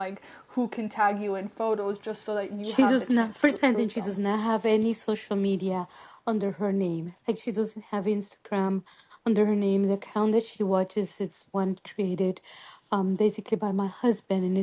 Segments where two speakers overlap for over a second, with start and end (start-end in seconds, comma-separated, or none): 2.6-4.1